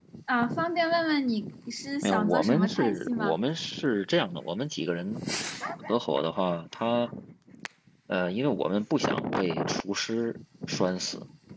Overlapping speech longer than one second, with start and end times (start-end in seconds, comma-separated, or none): 2.0-3.4